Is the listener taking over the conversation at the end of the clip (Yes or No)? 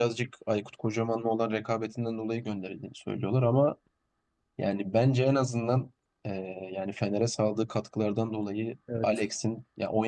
No